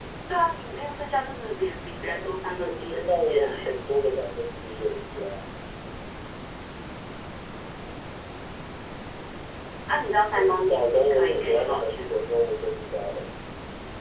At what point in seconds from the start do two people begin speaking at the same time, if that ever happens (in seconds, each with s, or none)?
2.1 s